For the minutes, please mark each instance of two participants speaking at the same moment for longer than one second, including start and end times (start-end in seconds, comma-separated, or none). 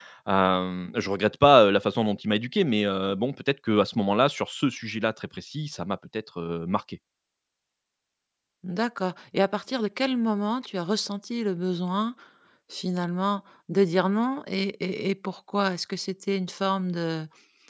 none